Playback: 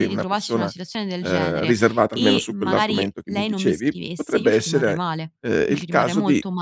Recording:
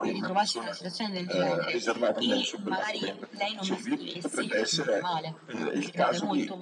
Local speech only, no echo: none

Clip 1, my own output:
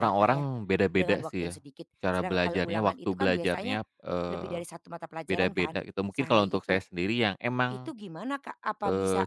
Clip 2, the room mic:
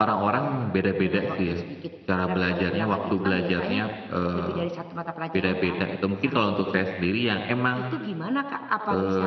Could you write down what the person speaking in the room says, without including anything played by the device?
none

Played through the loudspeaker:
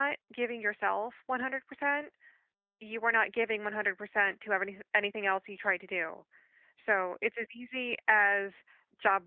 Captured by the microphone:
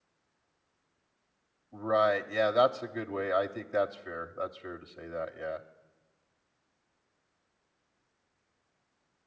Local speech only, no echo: Right. Yeah, that's a good way. I think that's fair. That's fair to say that. Yeah.

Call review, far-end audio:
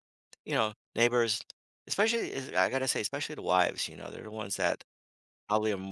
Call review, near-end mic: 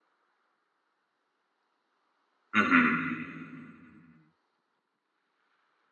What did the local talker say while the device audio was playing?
hmm

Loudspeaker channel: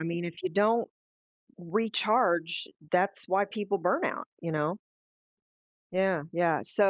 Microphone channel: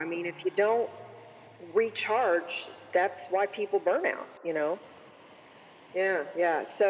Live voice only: none

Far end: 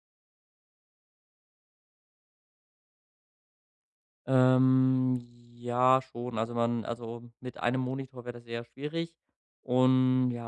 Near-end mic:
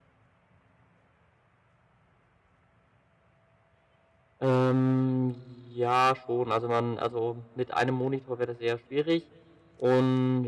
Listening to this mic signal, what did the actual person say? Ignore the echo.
none

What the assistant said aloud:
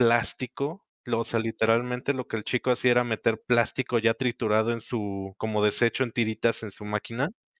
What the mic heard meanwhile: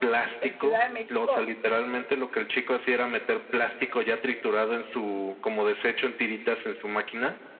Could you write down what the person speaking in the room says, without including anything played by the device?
En Ciudad de México,

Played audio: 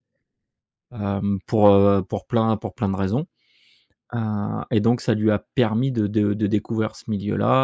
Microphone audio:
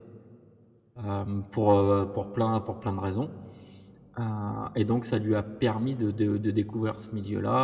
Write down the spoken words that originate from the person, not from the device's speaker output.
none

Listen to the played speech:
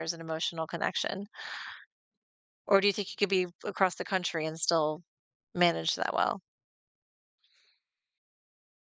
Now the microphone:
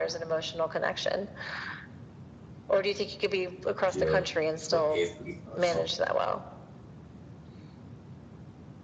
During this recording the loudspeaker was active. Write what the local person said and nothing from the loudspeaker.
Yep. It's gonna instantly start something.

